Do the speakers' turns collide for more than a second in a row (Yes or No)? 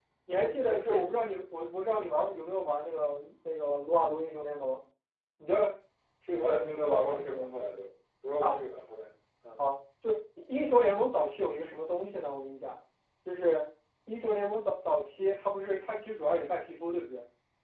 Yes